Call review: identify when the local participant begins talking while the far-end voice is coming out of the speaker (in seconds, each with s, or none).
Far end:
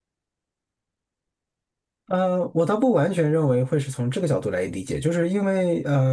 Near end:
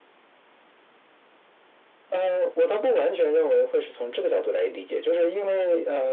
none